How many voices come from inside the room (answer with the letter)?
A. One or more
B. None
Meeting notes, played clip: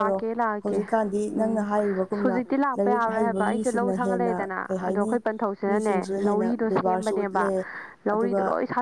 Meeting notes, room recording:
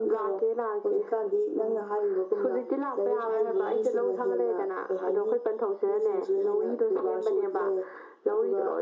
B